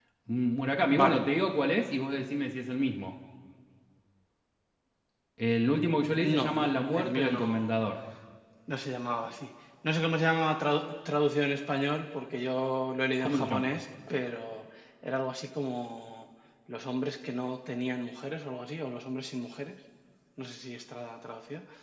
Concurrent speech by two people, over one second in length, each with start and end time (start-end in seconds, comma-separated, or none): 6.2-7.7